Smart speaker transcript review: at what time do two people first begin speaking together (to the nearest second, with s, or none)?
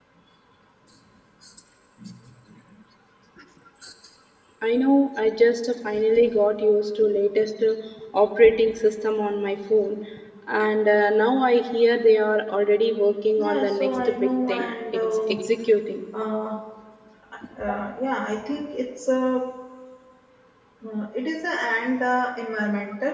13 s